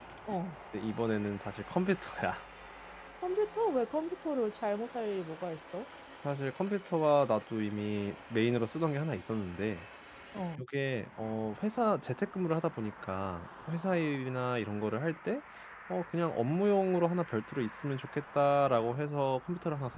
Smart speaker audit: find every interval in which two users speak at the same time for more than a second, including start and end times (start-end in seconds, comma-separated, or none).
none